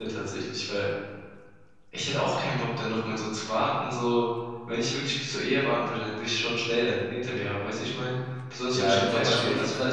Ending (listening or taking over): taking over